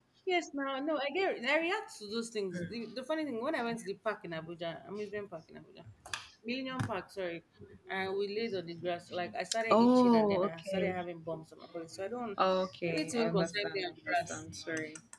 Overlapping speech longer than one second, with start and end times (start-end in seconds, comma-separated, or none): 9.7-10.9, 12.9-14.4